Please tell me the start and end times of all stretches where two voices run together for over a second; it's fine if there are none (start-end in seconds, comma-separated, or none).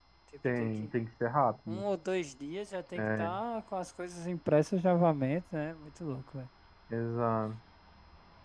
none